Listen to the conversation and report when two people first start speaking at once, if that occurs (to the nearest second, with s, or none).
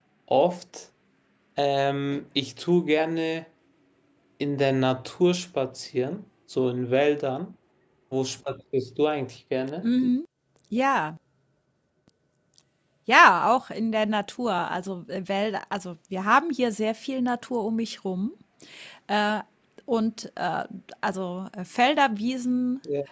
none